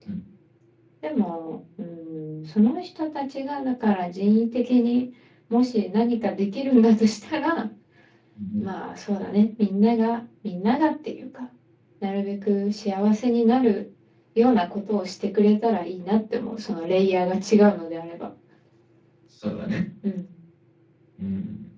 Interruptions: none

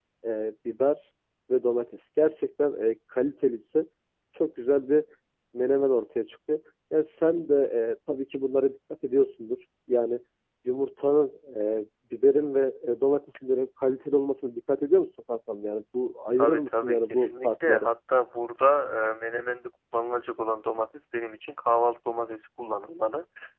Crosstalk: present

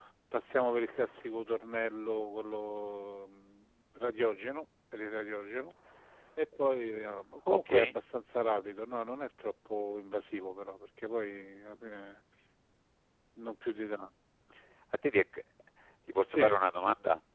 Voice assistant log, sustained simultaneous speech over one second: none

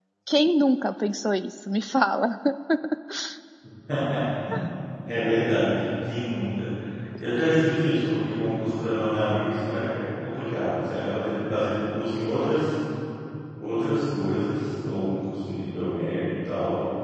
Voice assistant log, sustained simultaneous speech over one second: none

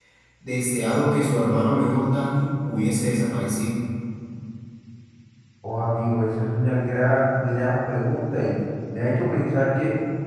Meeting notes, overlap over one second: none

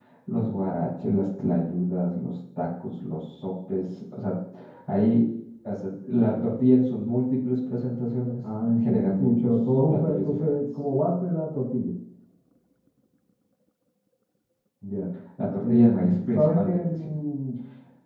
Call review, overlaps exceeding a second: present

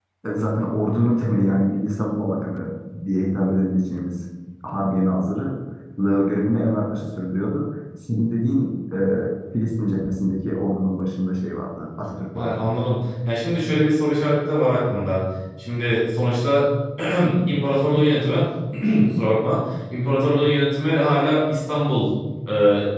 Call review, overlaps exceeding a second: none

